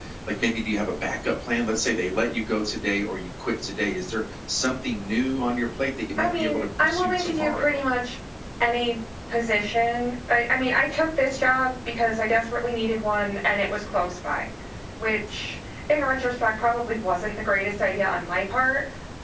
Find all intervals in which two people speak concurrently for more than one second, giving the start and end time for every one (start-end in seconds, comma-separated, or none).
6.2-7.8